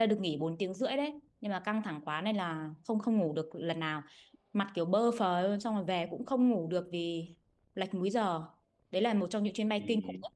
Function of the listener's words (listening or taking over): taking over